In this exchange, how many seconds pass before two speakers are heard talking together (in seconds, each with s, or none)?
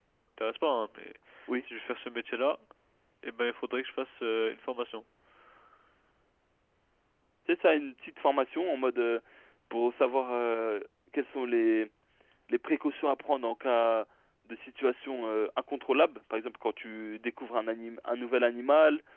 none